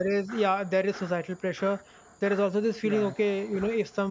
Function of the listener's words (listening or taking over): listening